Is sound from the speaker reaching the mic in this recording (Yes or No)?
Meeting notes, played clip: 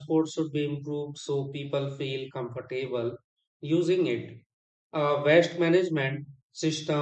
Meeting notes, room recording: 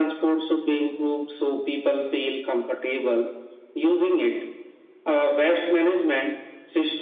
Yes